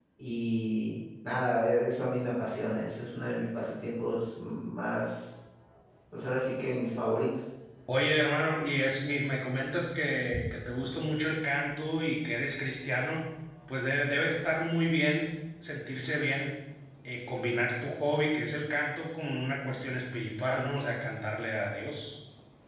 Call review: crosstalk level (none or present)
none